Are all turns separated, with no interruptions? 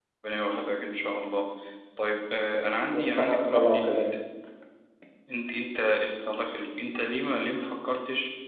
No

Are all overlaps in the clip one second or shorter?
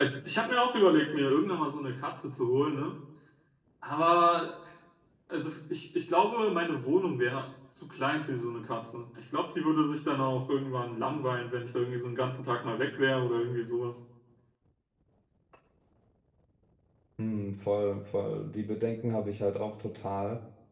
Yes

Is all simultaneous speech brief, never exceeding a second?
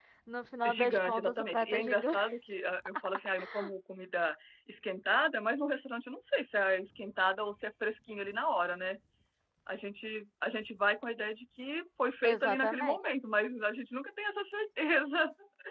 No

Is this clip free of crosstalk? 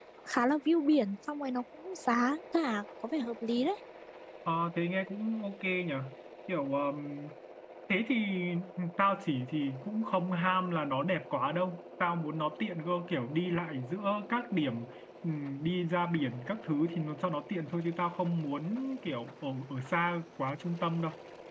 Yes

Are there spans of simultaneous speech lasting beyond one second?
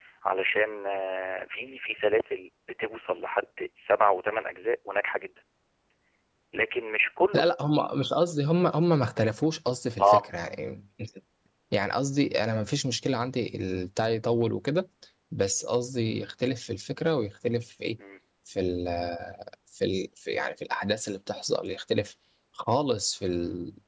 No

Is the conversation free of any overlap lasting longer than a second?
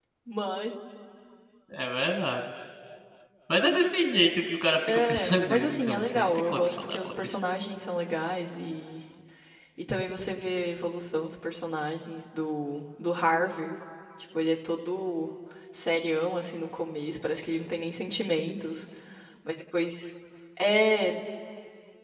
No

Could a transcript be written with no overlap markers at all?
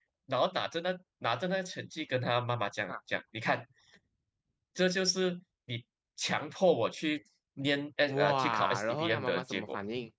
No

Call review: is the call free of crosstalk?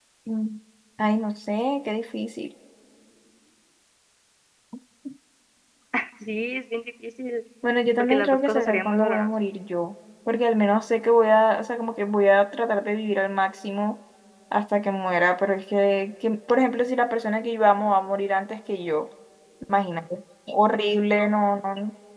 No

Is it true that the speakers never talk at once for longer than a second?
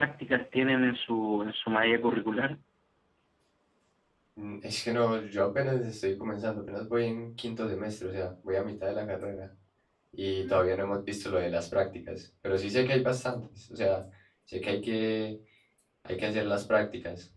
Yes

